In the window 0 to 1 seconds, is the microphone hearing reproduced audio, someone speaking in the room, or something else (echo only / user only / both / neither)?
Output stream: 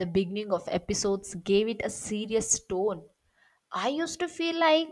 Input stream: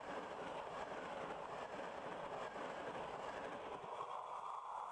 neither